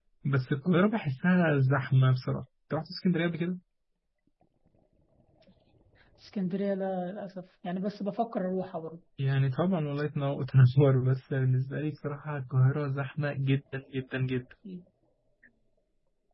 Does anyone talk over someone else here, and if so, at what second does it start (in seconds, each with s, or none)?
none